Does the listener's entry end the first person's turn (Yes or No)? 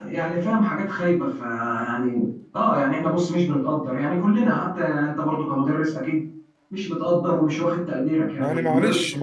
Yes